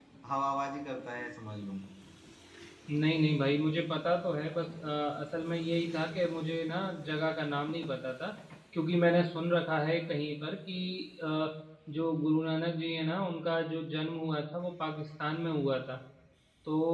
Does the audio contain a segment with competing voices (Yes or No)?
No